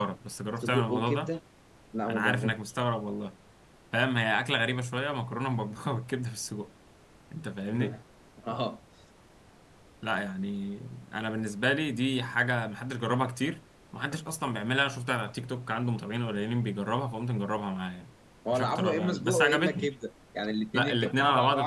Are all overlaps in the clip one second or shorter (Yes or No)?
No